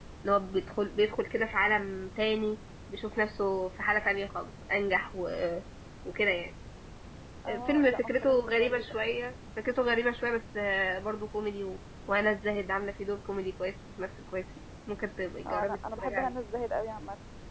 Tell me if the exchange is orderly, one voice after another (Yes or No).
No